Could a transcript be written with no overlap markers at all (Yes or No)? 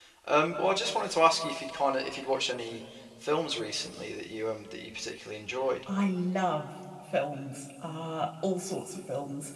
Yes